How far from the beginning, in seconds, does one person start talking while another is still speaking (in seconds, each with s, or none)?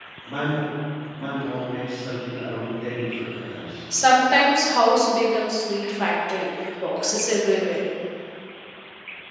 none